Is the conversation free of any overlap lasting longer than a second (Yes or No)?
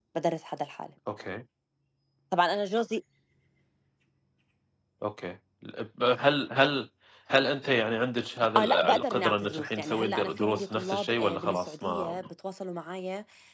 No